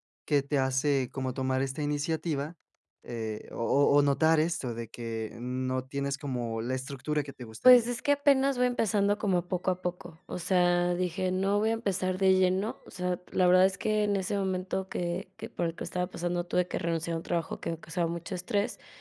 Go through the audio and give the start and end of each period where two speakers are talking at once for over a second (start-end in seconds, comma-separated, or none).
none